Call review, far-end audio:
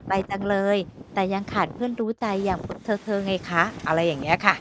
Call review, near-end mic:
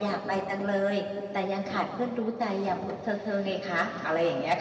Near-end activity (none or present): none